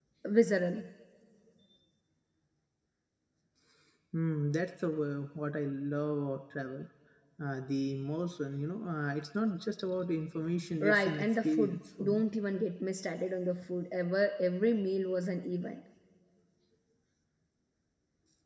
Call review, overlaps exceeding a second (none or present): present